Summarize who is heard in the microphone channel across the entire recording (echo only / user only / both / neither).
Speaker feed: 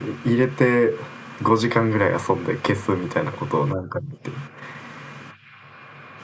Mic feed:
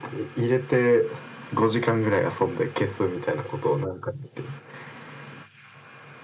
echo only